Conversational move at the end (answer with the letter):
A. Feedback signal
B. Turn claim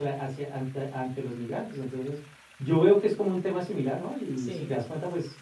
A